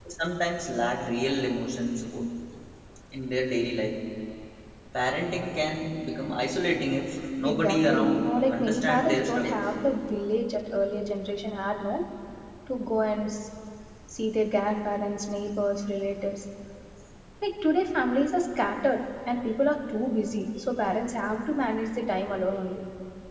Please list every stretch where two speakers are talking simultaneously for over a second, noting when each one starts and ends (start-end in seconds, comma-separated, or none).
7.5-9.7